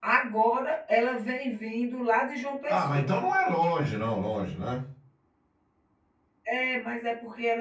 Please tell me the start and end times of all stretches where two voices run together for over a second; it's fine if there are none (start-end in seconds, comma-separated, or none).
none